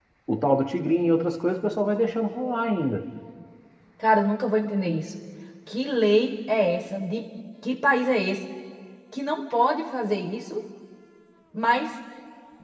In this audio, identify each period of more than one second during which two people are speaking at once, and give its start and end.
none

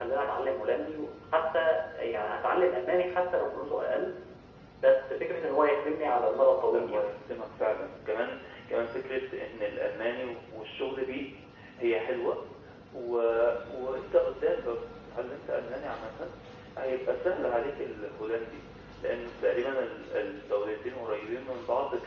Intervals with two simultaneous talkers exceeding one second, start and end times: none

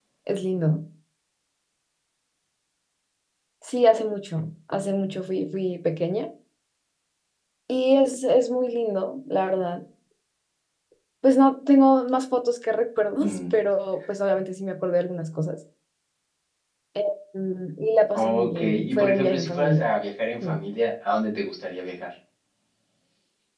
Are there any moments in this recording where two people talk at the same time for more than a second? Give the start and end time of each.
18.1-19.8

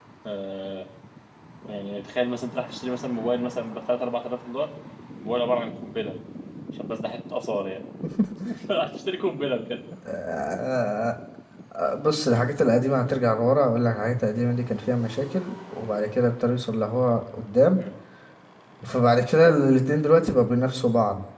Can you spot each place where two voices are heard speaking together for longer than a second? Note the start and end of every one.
none

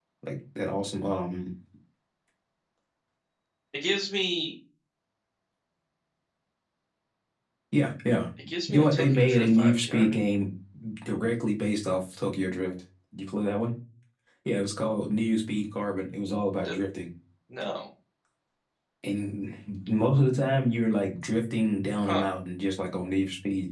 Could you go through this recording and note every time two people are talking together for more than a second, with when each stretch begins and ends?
8.7-10.3

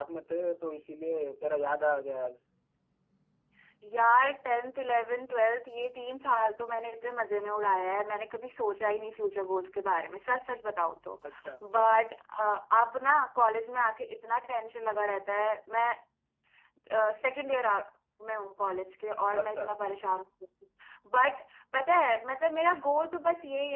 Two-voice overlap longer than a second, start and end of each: none

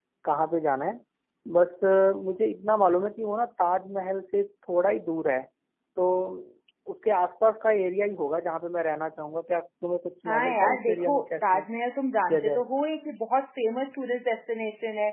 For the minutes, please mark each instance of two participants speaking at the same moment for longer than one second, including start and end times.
10.3-11.6

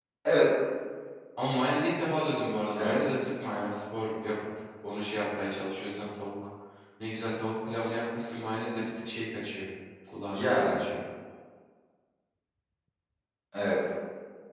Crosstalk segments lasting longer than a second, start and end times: none

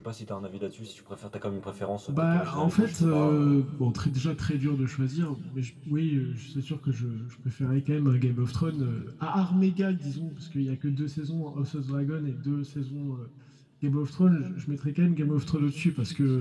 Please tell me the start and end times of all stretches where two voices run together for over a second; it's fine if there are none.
2.1-3.5

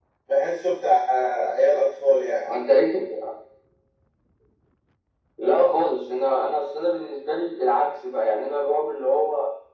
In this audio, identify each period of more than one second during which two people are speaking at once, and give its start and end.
none

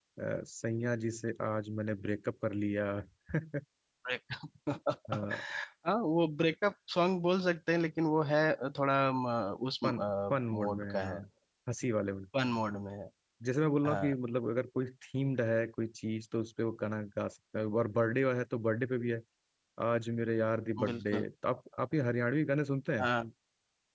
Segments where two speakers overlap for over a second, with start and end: 9.8-11.2

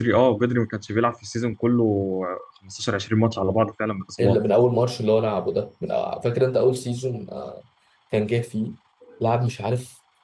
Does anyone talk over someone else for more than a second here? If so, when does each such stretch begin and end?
none

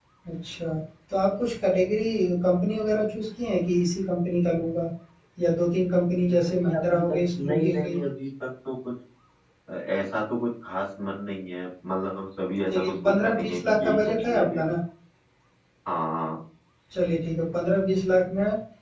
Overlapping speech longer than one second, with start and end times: 6.3-8.0, 12.7-14.7

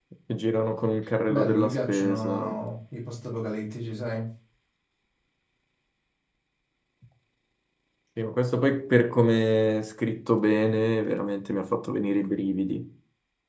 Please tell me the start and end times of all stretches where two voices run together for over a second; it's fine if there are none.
1.3-2.6

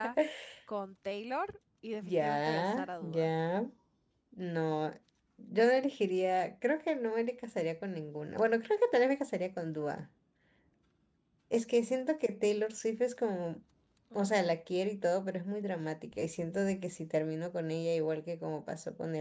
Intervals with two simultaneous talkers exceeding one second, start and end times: 2.0-3.3

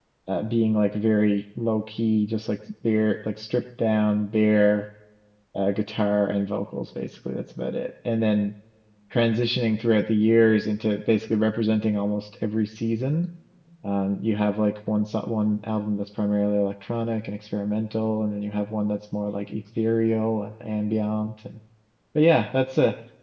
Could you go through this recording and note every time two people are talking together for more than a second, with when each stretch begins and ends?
none

